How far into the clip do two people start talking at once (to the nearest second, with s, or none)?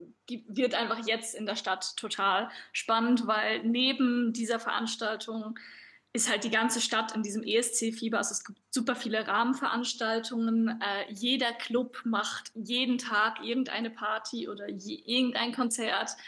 none